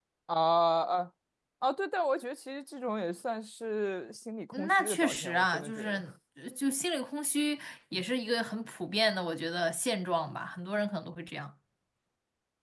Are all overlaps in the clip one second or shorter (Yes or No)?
No